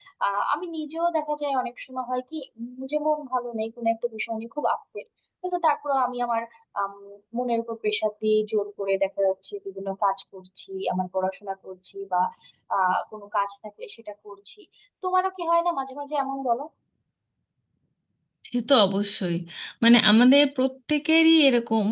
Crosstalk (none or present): none